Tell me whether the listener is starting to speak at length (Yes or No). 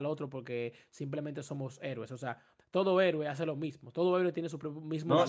Yes